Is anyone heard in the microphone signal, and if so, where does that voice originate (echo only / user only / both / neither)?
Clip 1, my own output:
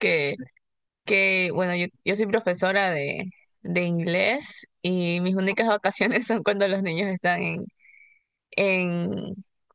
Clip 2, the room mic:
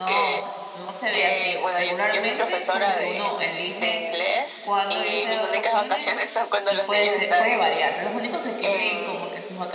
both